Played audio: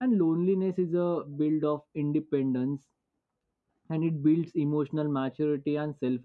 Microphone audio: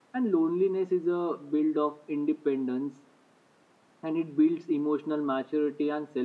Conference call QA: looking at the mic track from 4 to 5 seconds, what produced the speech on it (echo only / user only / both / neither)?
echo only